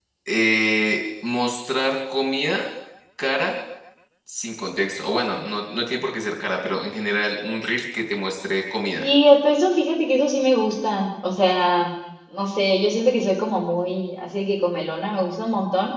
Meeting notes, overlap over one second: none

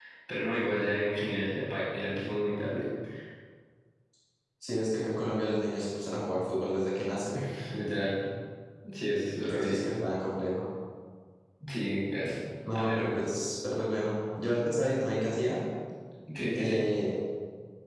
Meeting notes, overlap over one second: none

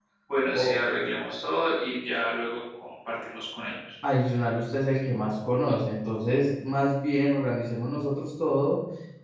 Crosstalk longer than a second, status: none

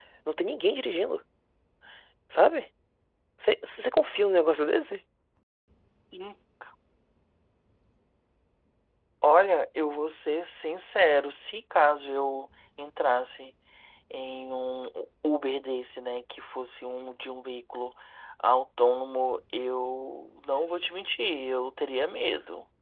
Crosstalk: none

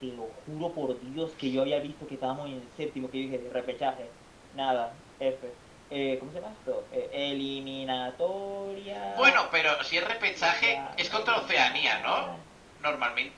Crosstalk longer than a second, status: present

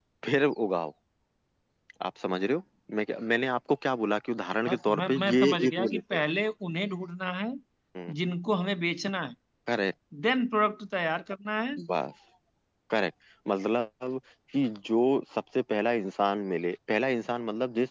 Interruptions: present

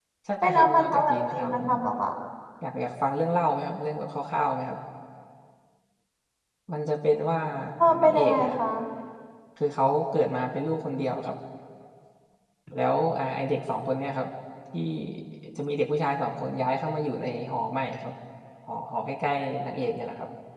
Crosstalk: present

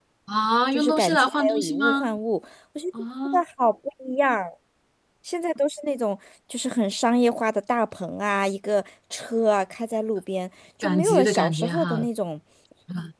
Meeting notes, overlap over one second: present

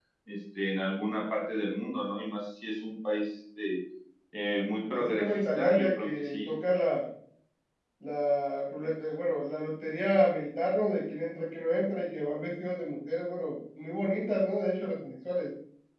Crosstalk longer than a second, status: present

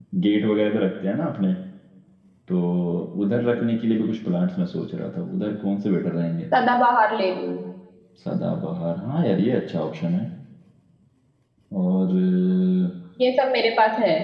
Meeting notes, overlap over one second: none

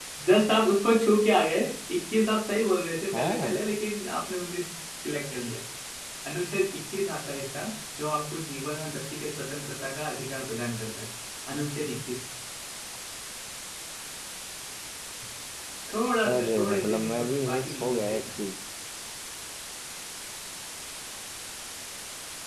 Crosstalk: present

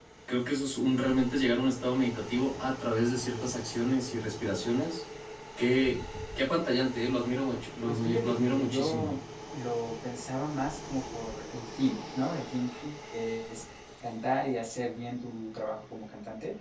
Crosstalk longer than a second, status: present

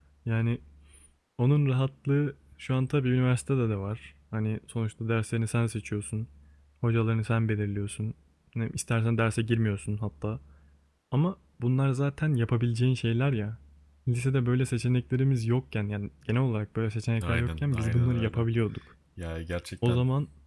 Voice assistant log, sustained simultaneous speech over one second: present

